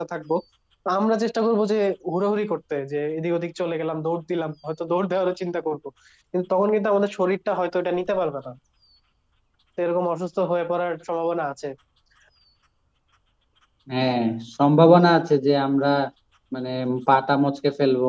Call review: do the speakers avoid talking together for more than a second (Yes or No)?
Yes